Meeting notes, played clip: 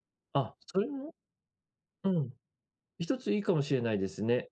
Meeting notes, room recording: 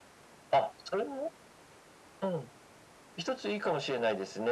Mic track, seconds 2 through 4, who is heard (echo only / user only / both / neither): echo only